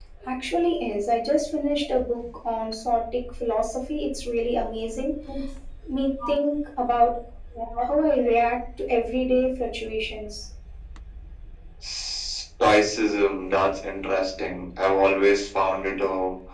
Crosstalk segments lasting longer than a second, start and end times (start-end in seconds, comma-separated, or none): none